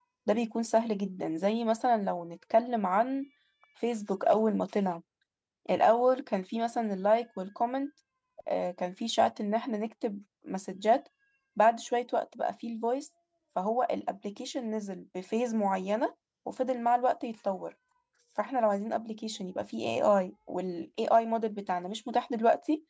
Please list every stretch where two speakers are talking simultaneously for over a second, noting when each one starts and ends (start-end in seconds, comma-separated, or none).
none